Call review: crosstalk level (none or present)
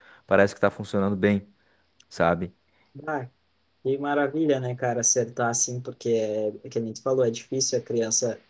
none